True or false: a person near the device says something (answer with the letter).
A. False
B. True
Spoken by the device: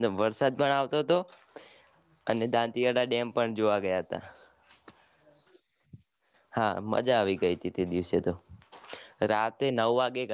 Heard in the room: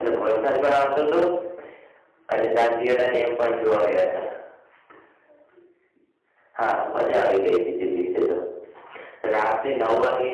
A